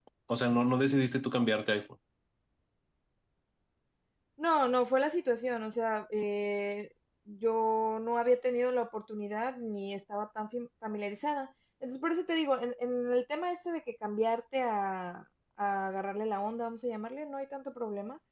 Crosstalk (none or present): none